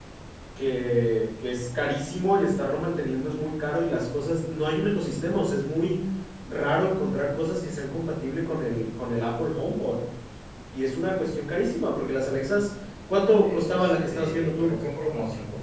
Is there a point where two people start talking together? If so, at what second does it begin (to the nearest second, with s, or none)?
13 s